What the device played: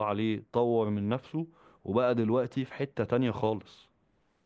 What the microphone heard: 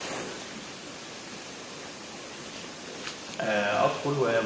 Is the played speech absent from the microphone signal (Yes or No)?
Yes